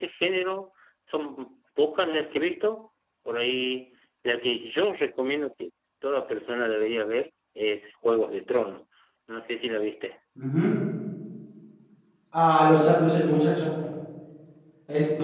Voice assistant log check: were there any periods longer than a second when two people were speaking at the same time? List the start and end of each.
none

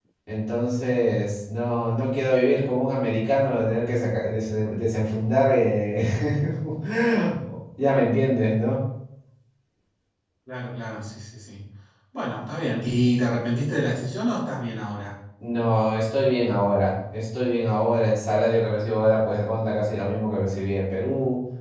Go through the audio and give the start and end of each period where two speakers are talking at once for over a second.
none

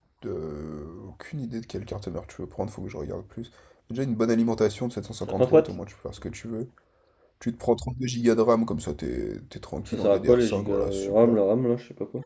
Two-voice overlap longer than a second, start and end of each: 9.9-11.4

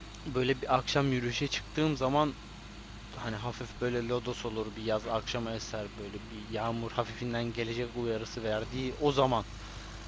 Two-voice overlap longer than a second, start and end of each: none

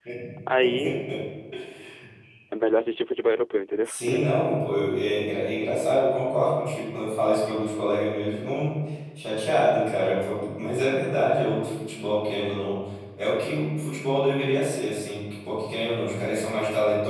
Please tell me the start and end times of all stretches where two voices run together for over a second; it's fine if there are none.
none

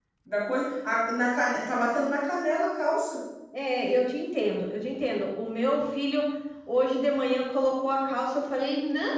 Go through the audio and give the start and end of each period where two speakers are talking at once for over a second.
none

